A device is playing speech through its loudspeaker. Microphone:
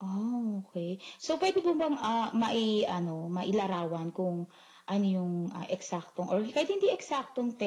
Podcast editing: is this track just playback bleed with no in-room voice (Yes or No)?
Yes